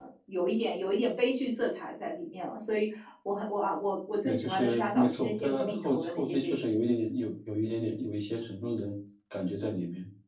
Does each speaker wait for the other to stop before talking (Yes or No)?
No